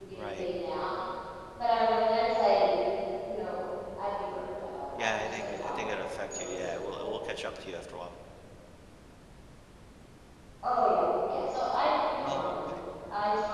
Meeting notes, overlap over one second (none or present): present